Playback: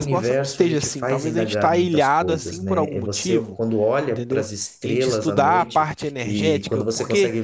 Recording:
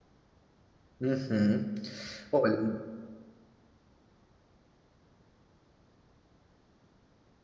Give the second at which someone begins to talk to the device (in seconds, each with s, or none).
1.0 s